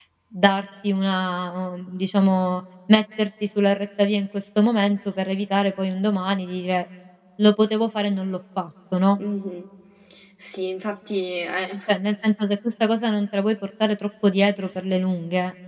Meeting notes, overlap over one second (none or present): none